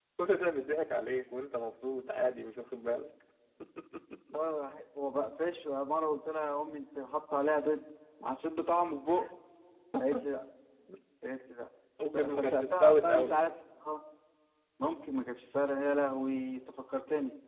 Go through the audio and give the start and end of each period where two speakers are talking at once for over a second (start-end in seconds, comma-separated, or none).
12.1-13.4